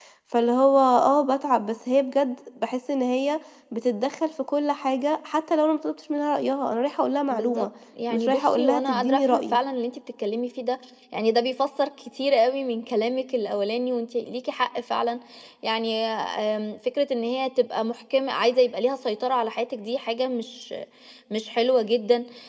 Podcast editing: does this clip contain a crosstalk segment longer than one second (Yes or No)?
Yes